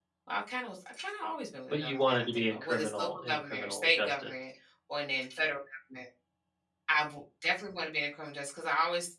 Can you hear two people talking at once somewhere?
Yes, from 1.7 s

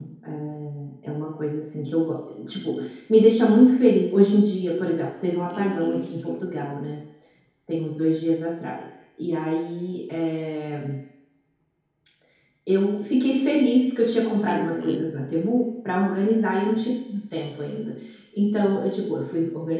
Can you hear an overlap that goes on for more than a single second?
Yes, from 5.5 s

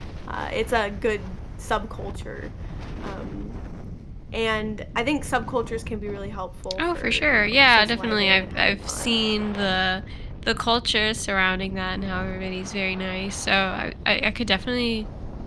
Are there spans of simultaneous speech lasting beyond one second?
Yes, from 6.6 s

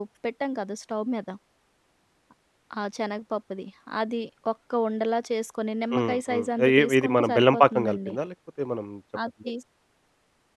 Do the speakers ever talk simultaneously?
Yes, from 5.9 s

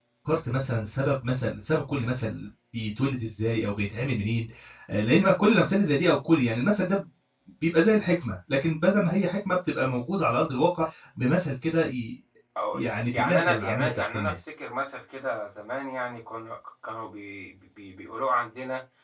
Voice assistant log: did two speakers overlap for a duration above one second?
Yes, from 12.7 s

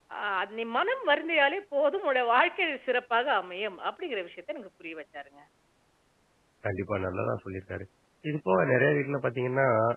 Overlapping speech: No

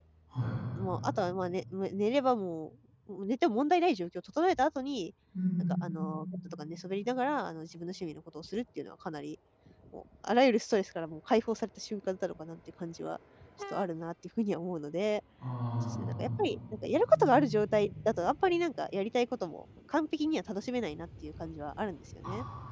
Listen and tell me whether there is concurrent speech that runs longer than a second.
No

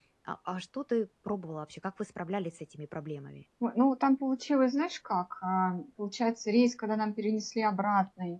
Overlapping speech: No

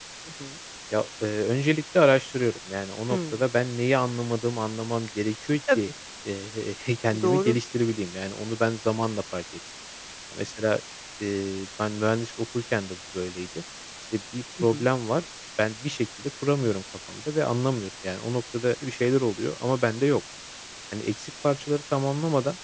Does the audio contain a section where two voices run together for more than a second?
No

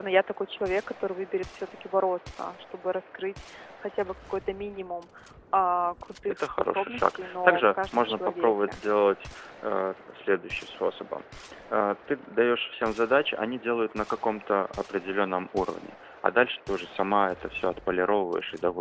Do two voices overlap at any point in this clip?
Yes, from 6.4 s

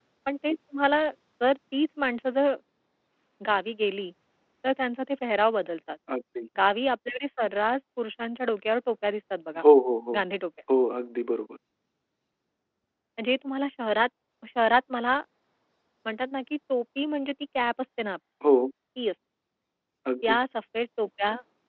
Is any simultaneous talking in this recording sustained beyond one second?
No

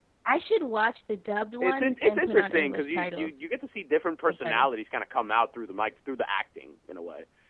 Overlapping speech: Yes, from 1.6 s

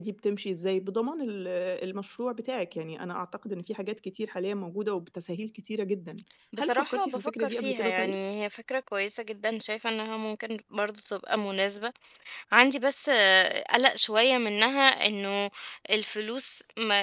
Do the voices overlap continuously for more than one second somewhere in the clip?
Yes, from 6.5 s

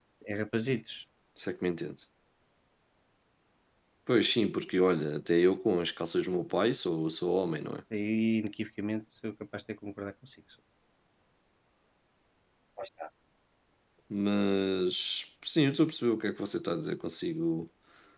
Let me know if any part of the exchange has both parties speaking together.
No

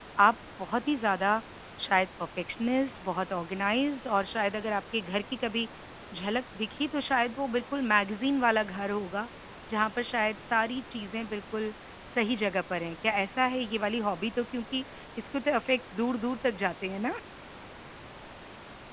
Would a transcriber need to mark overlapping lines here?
No

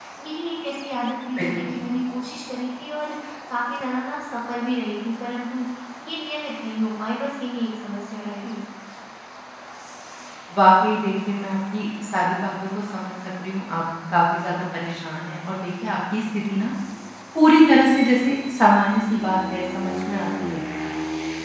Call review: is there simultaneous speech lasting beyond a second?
No

